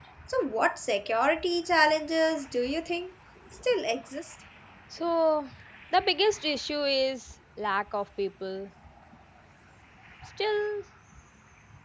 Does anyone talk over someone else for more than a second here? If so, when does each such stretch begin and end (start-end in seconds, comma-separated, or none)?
none